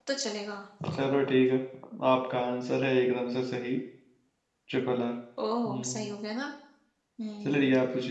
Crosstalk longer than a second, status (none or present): none